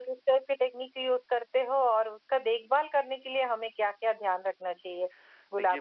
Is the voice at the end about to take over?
Yes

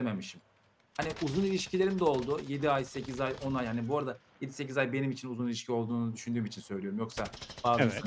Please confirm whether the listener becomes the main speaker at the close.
No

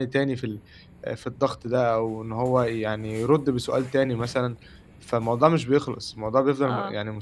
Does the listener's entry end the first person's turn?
Yes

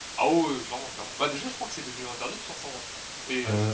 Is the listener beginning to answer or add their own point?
Yes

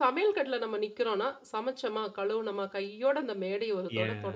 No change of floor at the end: No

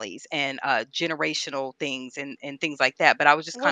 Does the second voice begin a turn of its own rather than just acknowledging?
Yes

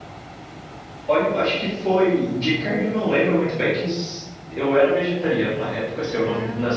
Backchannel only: Yes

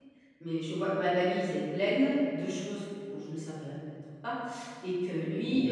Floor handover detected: No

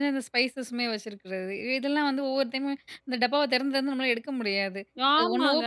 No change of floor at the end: No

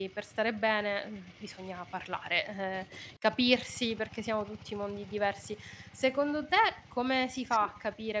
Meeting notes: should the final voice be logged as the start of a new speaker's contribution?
No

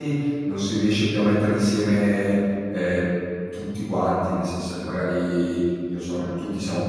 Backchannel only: Yes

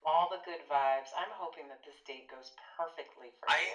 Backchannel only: No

